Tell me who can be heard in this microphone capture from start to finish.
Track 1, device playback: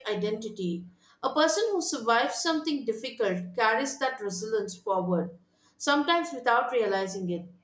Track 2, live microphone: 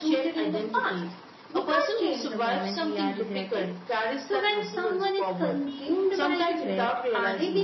both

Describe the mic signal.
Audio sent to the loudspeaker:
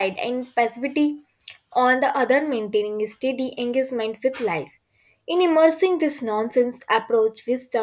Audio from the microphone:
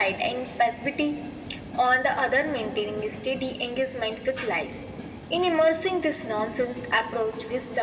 echo only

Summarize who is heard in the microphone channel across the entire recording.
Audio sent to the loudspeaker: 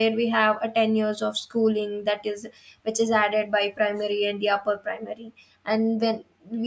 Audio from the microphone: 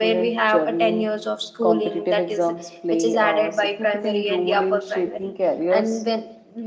both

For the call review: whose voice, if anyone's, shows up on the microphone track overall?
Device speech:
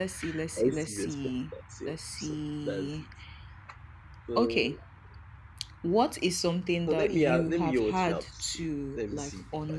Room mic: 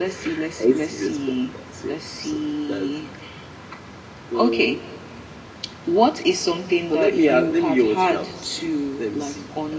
echo only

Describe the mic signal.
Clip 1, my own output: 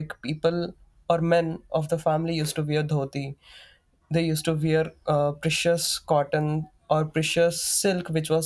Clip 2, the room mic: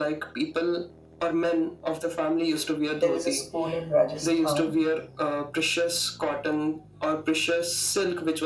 both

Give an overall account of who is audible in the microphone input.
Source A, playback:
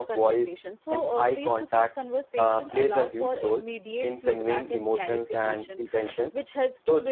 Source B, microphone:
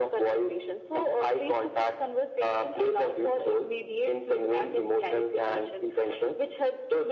echo only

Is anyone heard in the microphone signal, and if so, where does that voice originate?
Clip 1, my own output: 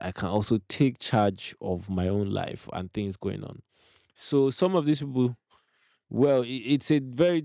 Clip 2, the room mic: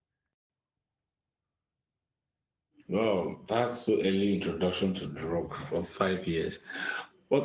user only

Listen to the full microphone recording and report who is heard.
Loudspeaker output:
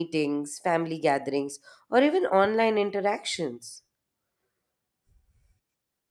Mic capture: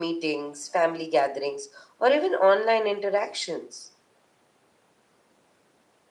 echo only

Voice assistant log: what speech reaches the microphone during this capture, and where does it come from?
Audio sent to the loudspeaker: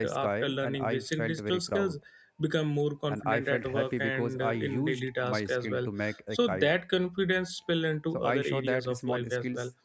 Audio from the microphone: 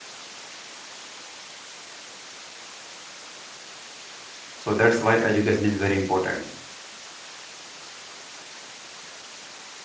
user only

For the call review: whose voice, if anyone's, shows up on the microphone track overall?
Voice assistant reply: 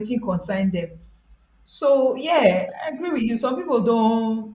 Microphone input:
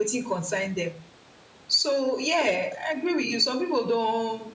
echo only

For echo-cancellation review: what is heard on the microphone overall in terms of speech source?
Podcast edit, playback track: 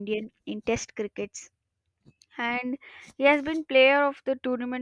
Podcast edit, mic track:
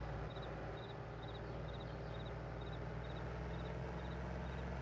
neither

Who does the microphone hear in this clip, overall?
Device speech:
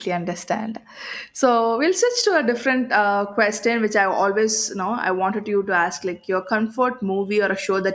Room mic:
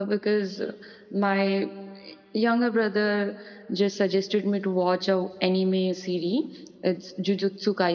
user only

